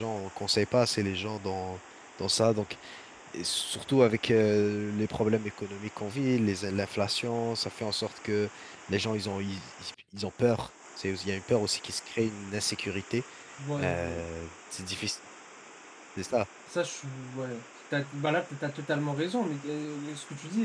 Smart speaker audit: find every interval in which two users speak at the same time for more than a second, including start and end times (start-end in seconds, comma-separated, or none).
none